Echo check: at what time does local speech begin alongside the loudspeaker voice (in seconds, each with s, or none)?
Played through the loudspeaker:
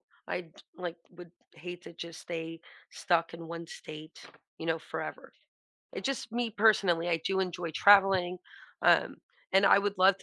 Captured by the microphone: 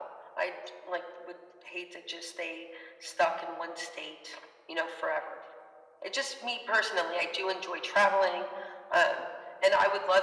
none